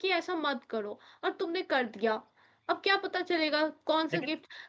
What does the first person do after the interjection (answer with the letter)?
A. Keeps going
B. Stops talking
A